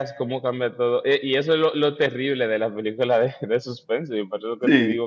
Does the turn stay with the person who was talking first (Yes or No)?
Yes